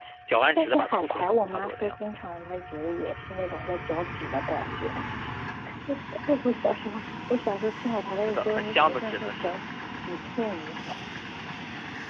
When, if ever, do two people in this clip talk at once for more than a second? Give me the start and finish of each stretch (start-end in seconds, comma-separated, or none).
0.6-1.9, 8.1-9.5